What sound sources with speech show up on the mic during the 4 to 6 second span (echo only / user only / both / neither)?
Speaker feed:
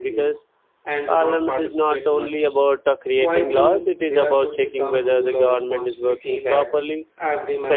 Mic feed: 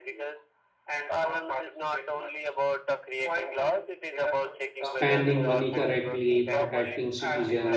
both